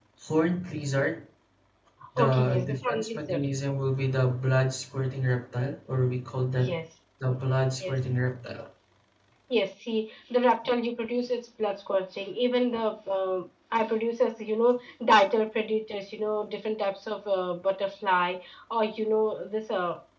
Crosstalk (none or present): present